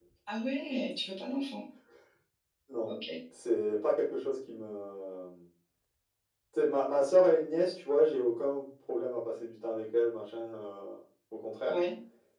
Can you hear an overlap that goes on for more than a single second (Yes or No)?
No